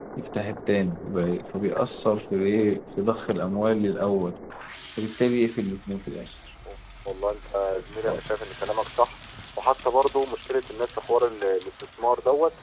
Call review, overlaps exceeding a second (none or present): none